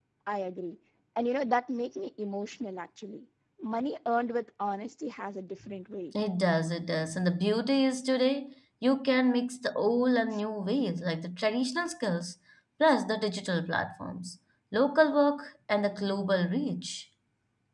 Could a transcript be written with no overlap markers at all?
Yes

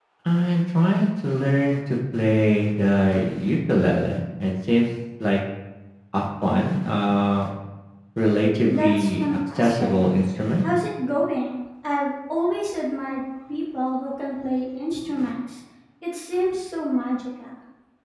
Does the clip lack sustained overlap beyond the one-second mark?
No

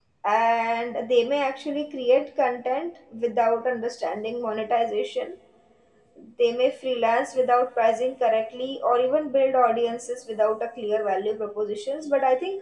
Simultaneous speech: No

